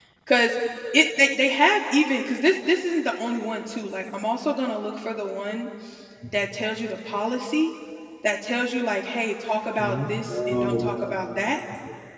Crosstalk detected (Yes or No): Yes